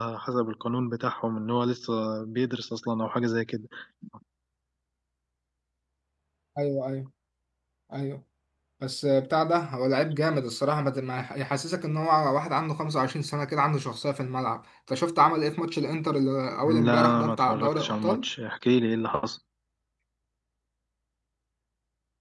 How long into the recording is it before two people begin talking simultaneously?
16.6 s

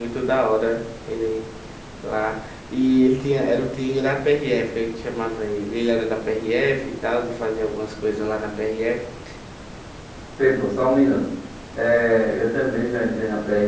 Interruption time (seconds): none

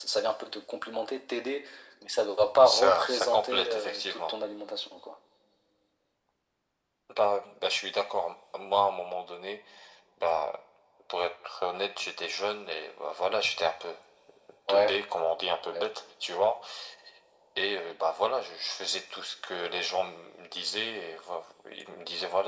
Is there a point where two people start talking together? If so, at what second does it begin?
2.6 s

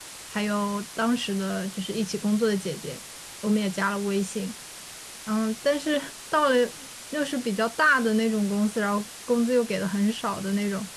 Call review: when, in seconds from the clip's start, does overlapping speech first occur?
none

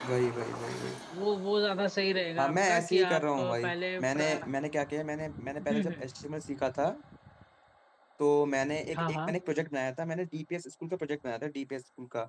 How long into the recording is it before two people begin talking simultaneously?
2.4 s

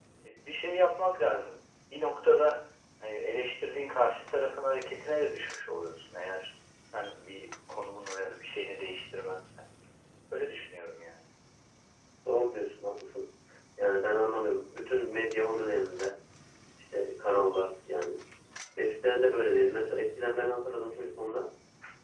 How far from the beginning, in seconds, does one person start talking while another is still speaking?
none

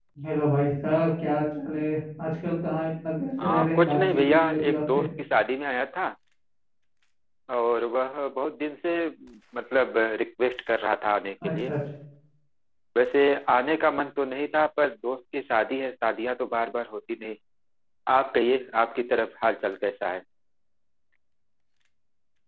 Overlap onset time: 3.4 s

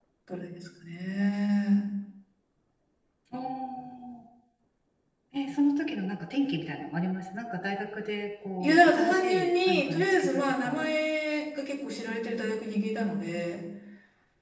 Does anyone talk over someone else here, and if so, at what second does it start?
8.6 s

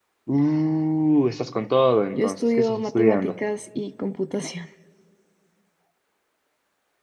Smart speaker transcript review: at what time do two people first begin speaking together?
2.1 s

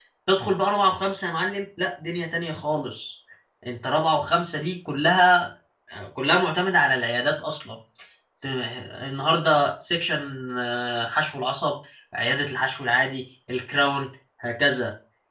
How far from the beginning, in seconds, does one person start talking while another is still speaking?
none

